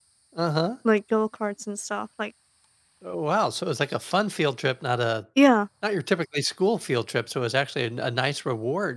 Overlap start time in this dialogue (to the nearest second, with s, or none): none